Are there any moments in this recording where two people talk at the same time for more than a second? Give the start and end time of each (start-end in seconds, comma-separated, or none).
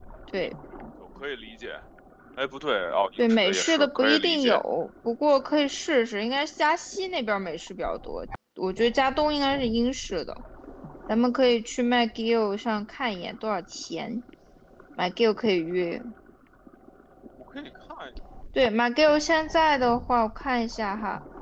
3.2-4.6